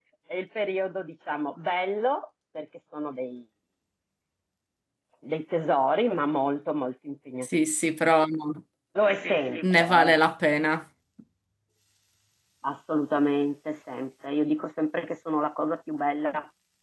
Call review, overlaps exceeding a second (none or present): none